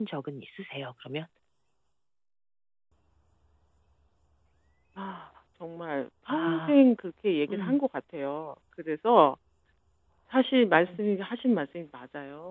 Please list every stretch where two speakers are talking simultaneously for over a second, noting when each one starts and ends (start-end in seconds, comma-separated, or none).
none